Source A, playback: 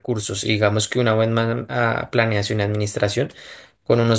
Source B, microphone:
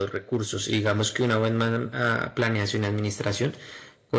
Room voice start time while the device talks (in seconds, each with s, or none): none